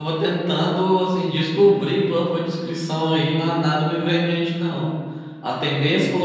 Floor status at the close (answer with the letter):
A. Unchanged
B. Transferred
A